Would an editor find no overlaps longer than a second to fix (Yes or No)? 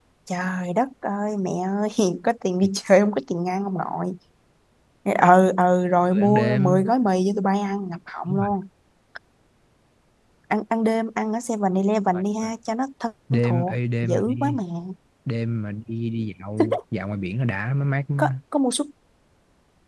No